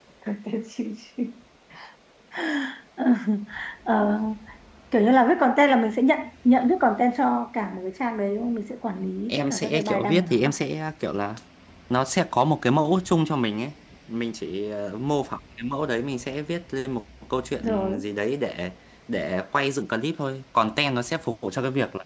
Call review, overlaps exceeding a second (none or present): present